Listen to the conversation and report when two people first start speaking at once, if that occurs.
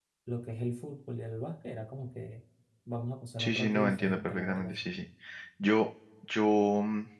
3.4 s

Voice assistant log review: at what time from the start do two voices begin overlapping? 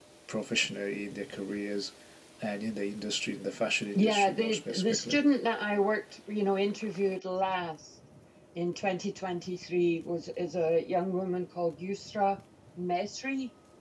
4.0 s

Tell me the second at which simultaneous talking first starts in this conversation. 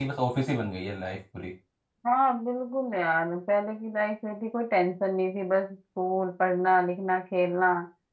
none

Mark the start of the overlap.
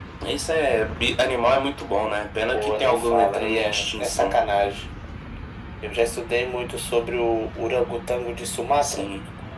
2.5 s

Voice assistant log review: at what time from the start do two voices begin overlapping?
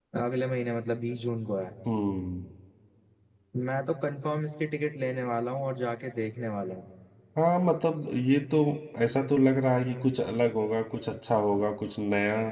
none

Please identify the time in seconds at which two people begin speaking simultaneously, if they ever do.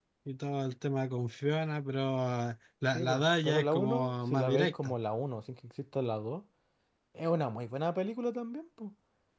2.9 s

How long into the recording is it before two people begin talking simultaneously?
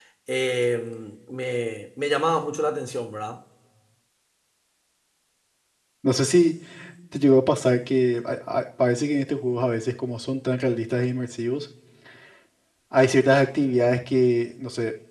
none

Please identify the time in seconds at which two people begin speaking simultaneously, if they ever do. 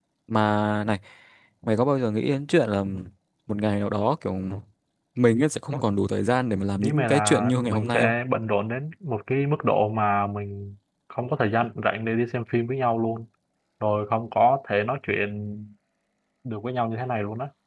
6.8 s

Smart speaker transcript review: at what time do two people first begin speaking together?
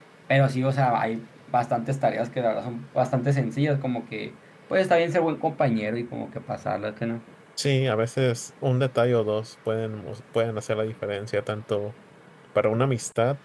none

